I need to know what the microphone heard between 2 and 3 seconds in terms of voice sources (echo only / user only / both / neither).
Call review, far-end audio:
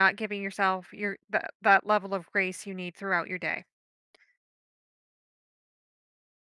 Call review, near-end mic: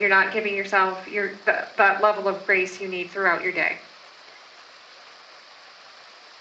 echo only